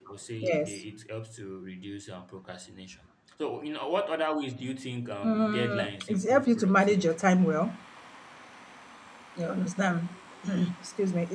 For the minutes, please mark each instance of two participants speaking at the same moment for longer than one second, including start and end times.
5.2-7.1

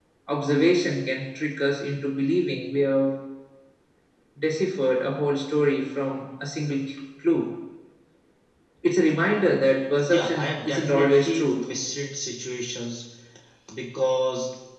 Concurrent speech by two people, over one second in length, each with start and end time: 10.0-11.6

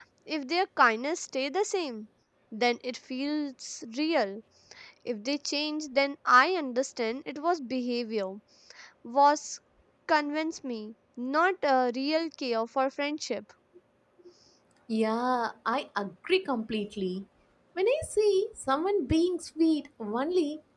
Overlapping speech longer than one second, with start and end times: none

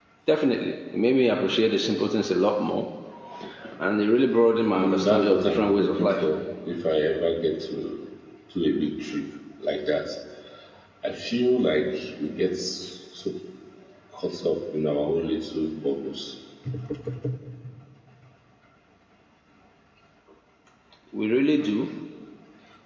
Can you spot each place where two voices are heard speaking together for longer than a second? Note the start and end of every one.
4.8-6.1

